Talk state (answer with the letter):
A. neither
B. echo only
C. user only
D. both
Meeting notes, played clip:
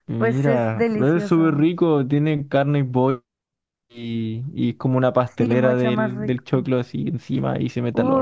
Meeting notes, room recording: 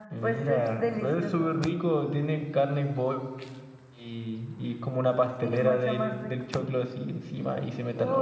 B